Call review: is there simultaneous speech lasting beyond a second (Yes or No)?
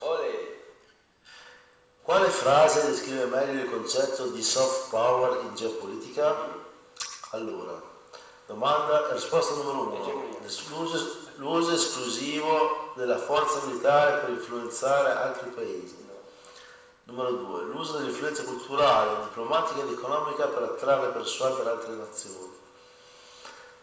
No